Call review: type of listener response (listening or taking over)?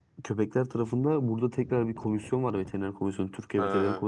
listening